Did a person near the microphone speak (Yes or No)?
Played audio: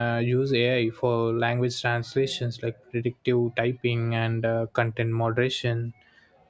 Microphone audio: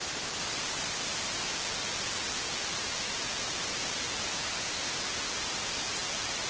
No